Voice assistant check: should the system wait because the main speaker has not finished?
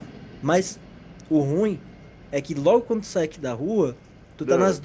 Yes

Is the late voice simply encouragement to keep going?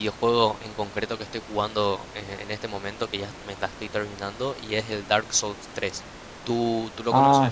No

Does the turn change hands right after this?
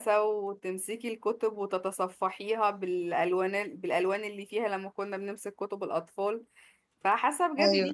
No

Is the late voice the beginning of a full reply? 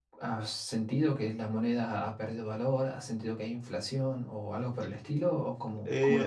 Yes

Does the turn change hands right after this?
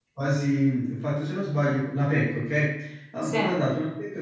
No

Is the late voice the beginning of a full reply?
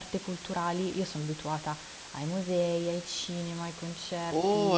Yes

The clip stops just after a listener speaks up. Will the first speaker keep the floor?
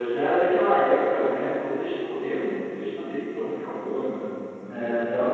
No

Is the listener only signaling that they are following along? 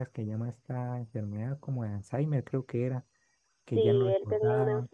No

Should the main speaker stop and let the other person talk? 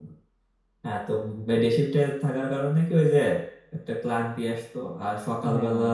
No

